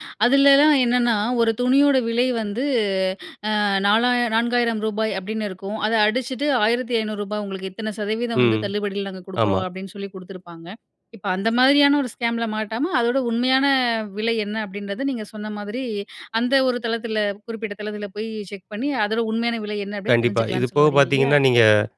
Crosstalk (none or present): present